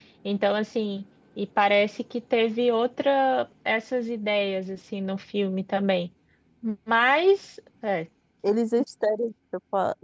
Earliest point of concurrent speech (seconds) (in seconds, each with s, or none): none